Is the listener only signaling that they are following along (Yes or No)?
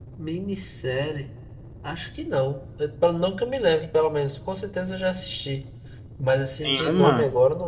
No